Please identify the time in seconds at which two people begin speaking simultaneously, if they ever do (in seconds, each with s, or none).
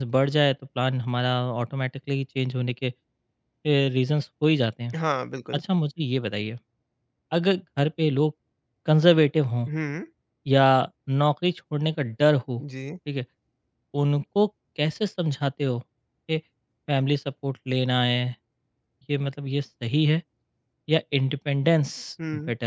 none